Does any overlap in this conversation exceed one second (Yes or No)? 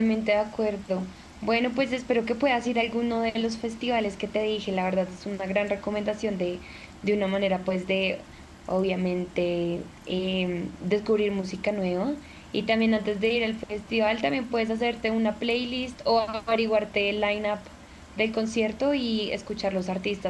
No